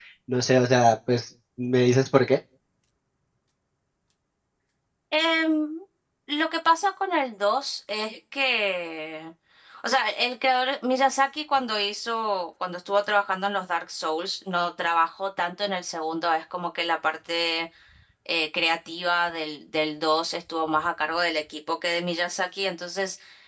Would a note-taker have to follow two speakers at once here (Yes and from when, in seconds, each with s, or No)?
No